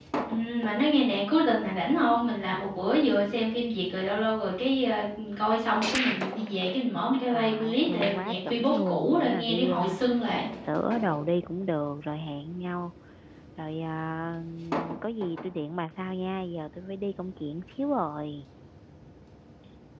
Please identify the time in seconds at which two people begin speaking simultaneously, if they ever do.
7 s

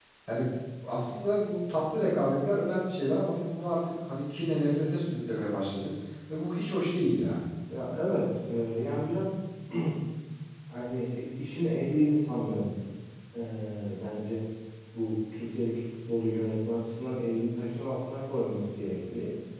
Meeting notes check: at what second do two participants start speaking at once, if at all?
none

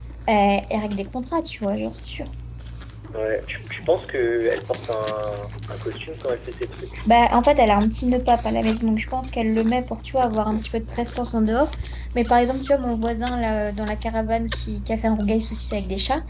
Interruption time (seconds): none

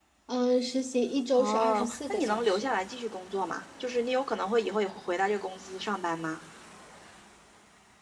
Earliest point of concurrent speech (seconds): 1 s

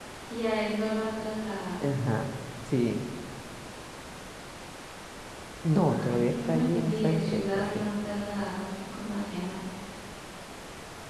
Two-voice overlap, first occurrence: 6 s

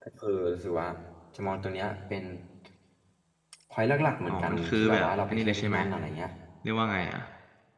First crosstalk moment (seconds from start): 4 s

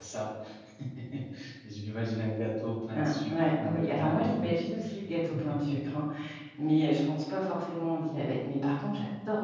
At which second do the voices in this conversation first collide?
3 s

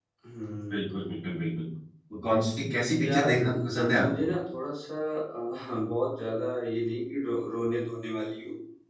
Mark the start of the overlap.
3 s

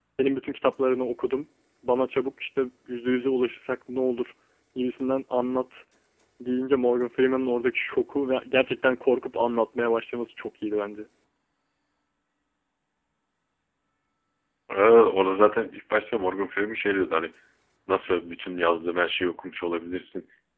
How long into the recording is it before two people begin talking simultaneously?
none

